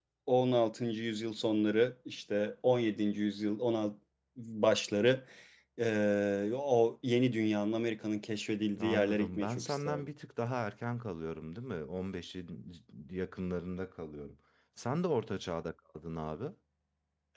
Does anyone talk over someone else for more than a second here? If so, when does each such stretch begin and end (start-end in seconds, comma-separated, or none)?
8.8-10.1